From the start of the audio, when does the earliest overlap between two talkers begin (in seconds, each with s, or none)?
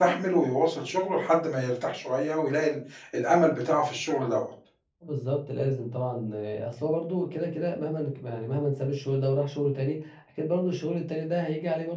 none